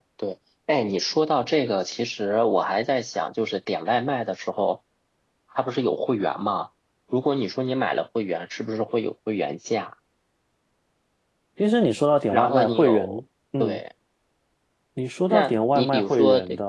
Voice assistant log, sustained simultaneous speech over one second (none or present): present